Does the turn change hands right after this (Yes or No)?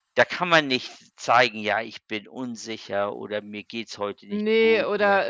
Yes